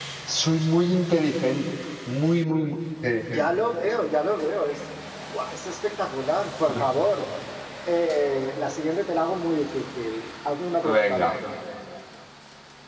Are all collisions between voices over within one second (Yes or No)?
Yes